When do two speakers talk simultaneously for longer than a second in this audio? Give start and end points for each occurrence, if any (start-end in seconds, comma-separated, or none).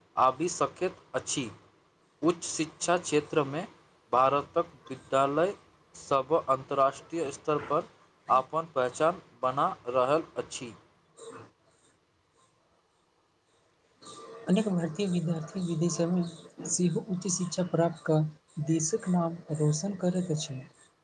none